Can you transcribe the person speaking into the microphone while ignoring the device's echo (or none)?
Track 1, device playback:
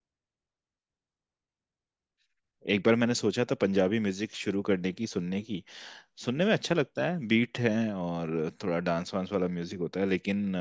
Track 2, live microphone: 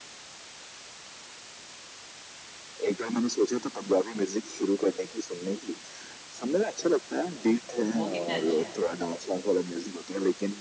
वो कितने अच्छे हैं